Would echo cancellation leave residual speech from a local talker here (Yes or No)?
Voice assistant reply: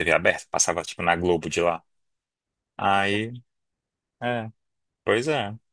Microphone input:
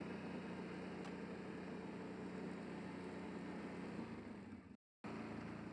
No